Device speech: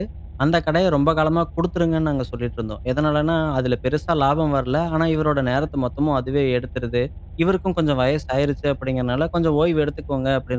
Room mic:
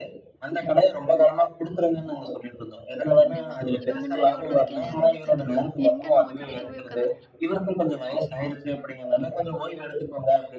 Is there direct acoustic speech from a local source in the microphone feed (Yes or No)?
Yes